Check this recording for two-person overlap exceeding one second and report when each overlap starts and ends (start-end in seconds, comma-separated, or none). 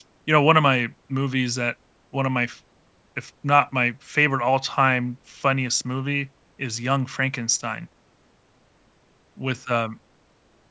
none